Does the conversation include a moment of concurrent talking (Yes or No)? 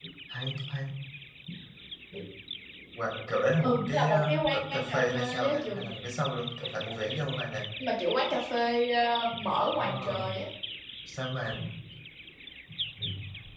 Yes